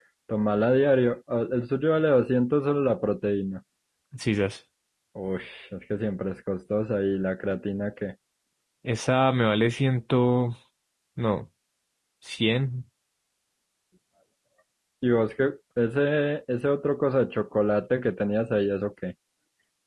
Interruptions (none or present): none